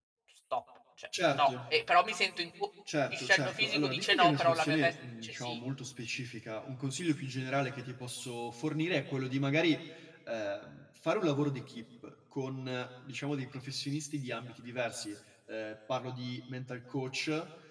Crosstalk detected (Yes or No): Yes